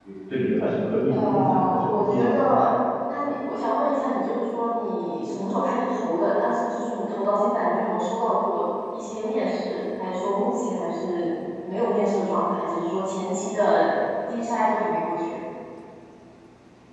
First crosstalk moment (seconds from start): 1 s

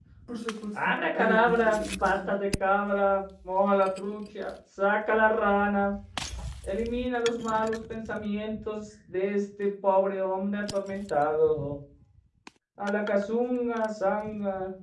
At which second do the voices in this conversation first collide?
1 s

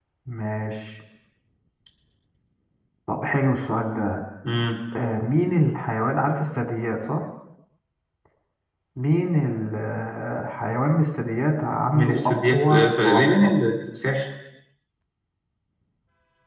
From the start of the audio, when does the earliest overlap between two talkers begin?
12 s

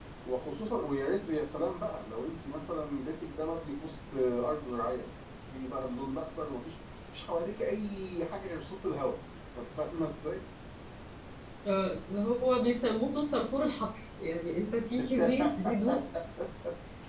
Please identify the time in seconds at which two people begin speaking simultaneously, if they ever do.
none

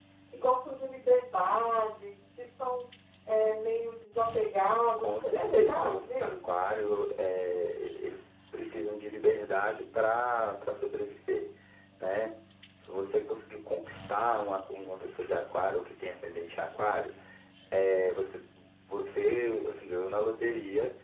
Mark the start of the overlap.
5 s

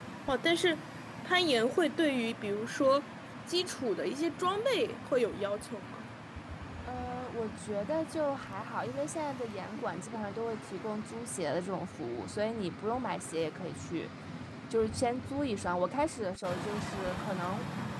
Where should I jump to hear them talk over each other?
none

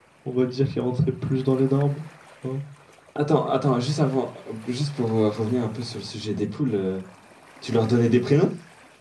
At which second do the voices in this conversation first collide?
none

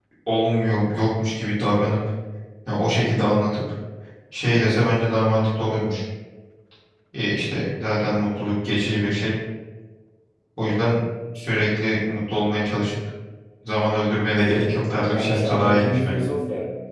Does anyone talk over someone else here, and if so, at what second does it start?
15 s

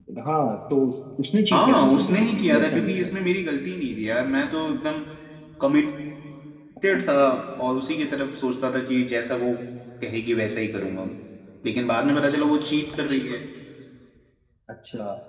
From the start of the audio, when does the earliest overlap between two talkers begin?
2 s

